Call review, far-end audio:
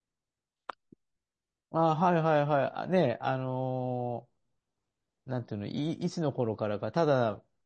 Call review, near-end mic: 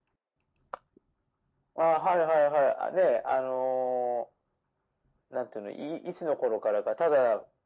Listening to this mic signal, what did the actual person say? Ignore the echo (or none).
none